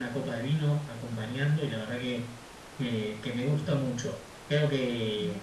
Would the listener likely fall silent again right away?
Yes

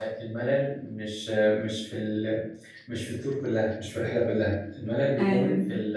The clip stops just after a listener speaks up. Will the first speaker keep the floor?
Yes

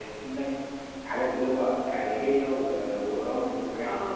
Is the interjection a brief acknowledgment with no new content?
No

